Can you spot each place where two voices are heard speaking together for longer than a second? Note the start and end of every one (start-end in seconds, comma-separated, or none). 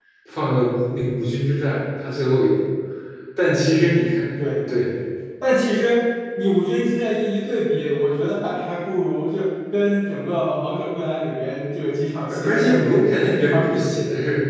12.3-13.8